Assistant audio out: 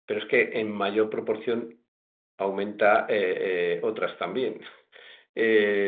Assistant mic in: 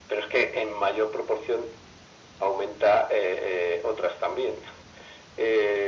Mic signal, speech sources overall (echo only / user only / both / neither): echo only